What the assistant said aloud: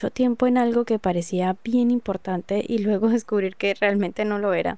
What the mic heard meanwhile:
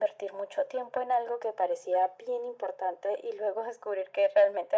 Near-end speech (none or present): none